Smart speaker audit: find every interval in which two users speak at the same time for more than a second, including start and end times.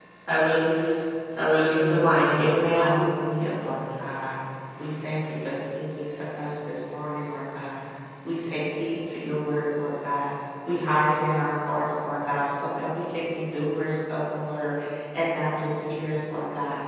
1.7-3.0

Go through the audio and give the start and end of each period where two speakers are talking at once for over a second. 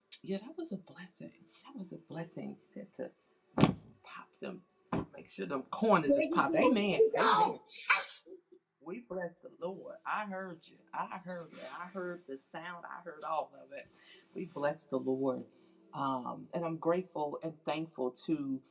6.1-7.6

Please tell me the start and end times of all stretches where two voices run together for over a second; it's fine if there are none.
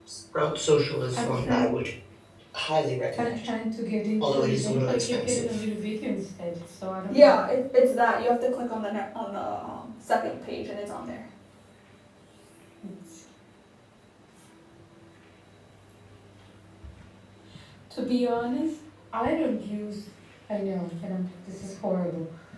4.2-5.6

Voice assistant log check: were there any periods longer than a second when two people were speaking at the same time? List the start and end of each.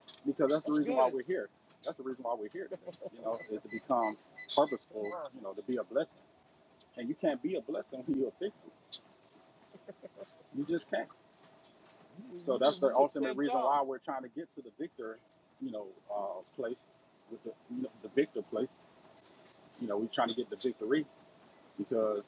12.4-13.8

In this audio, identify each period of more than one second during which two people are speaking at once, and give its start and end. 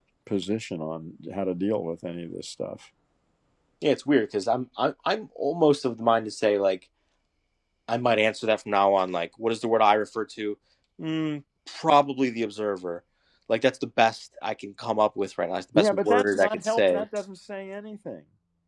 15.8-17.0

